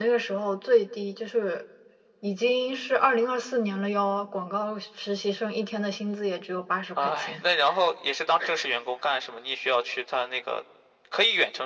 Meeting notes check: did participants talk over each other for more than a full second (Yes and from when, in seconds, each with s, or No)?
No